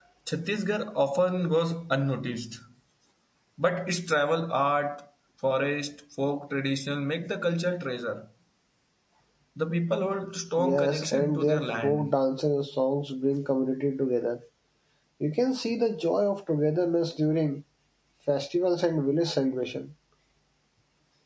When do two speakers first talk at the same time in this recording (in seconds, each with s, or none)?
10.6 s